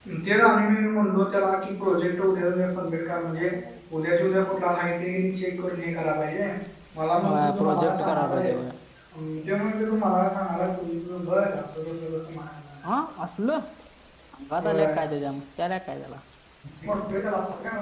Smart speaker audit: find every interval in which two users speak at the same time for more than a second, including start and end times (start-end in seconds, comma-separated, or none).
7.2-8.5